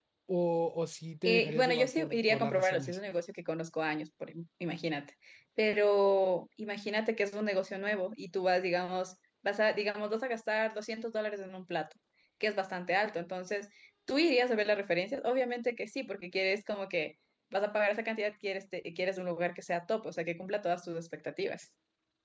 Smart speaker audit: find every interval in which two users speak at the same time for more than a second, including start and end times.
1.2-3.0

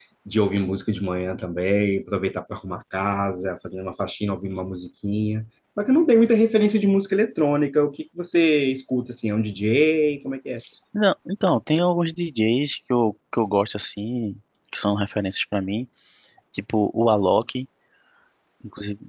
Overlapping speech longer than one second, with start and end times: none

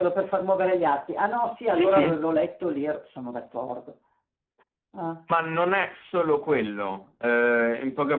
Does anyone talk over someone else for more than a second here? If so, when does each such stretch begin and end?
none

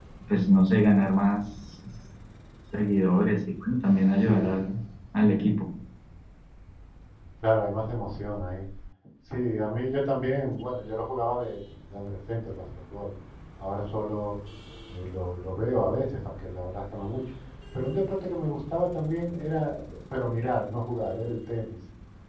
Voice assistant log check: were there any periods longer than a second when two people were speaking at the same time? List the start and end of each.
none

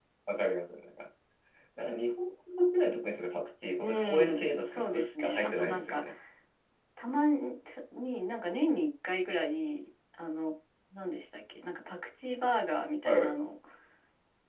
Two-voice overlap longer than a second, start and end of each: 3.8-6.0

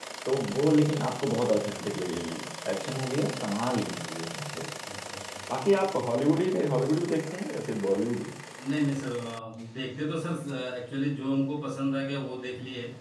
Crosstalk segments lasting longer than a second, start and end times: none

